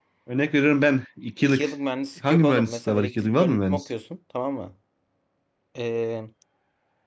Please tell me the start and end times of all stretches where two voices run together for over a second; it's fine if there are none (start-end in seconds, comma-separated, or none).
2.2-3.8